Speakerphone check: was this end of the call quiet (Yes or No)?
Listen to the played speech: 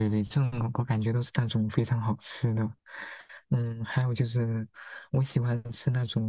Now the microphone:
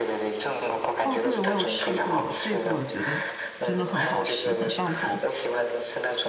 No